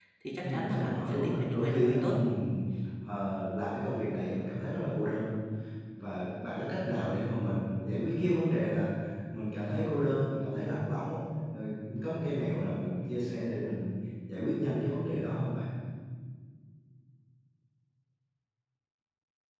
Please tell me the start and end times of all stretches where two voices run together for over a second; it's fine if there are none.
0.7-2.1

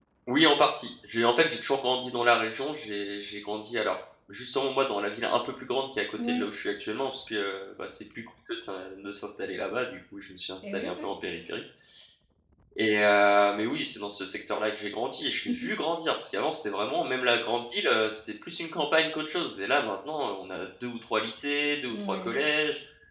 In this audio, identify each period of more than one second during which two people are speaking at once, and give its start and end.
none

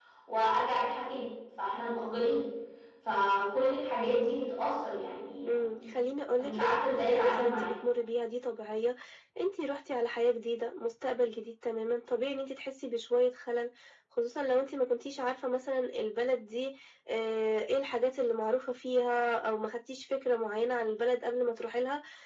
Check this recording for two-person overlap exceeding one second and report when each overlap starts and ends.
6.4-7.7

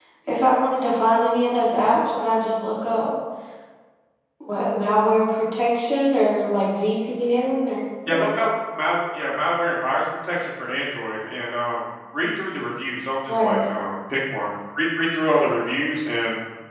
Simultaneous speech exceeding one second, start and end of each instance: none

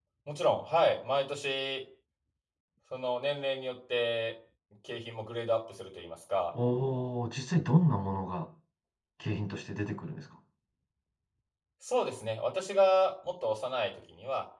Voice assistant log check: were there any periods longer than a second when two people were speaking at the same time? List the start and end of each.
none

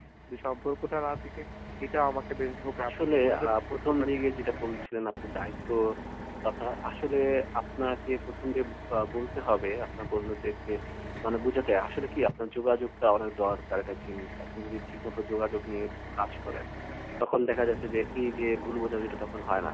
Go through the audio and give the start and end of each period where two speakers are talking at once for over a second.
2.8-4.2

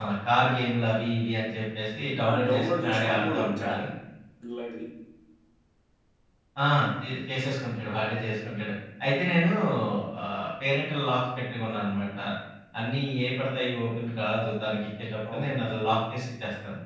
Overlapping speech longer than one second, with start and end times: 2.3-3.7

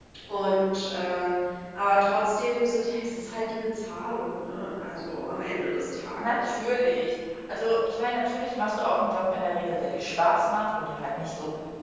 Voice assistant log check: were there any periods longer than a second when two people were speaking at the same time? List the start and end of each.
none

